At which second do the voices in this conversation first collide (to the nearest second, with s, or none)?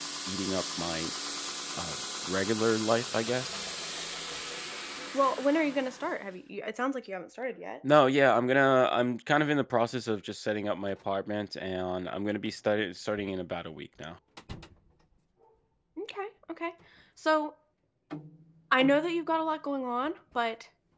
none